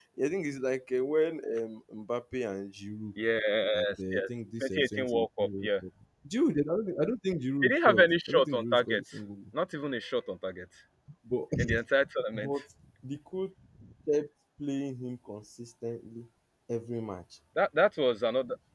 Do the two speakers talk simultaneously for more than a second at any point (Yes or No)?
Yes